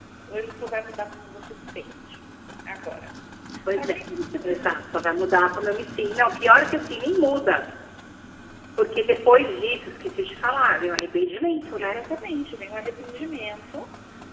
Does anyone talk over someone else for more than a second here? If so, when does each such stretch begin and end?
none

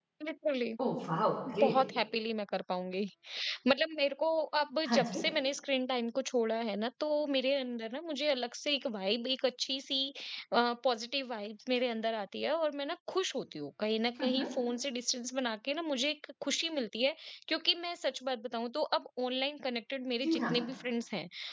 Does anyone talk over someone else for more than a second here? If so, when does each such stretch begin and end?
none

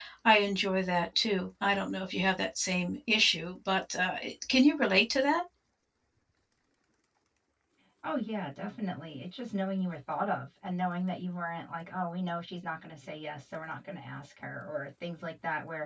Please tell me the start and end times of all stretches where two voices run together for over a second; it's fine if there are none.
none

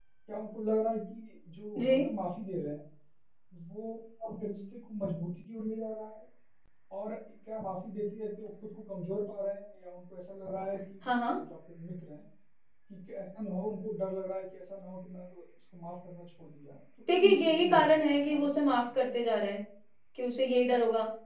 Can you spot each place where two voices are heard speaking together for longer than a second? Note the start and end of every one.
17.1-18.7

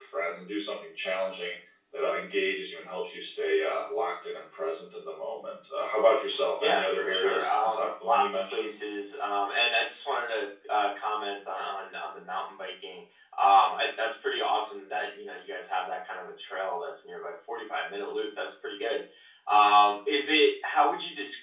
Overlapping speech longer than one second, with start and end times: 6.6-8.8

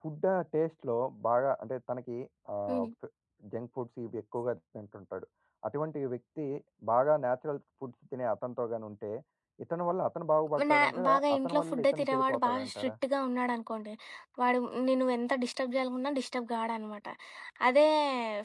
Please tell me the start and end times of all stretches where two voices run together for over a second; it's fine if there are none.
10.7-12.9

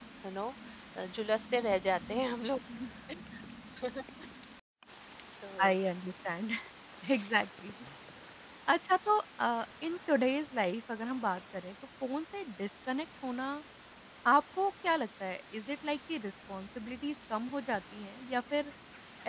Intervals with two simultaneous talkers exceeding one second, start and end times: none

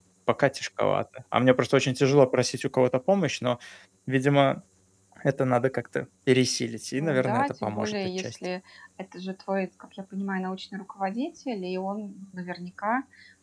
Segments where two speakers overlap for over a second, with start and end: 7.0-8.4

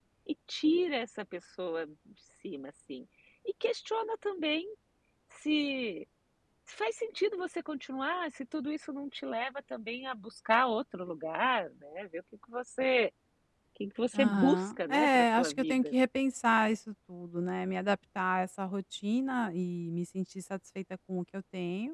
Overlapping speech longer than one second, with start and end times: 14.1-15.9

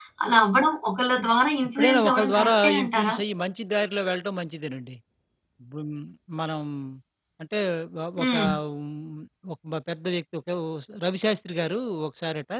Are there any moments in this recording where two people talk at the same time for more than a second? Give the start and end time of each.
1.8-3.2

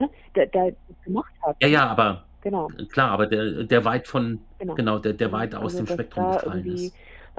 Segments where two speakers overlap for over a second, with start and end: 5.2-6.9

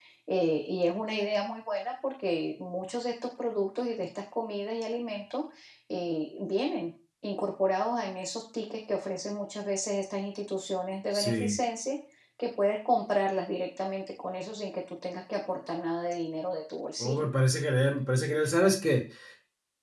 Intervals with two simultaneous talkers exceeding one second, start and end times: none

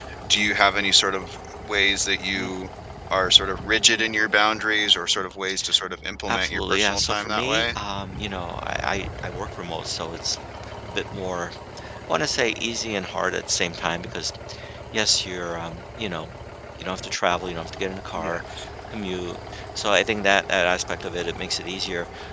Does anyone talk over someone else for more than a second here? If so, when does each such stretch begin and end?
6.3-7.7

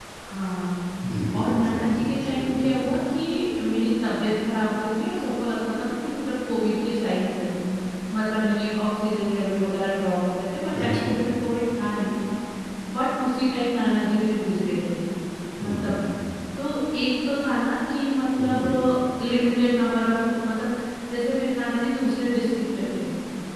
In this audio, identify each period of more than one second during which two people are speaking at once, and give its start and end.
1.3-2.7

